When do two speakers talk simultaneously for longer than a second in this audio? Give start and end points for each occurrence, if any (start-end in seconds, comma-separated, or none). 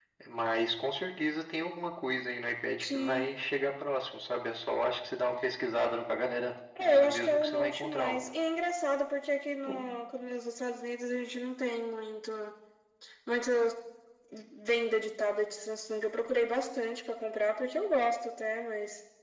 6.8-8.3